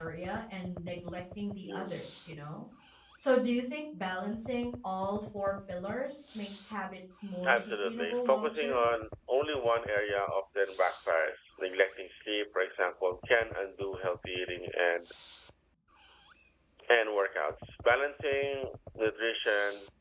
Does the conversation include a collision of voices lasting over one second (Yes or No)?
Yes